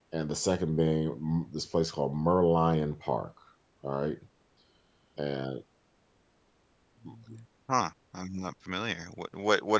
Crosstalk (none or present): none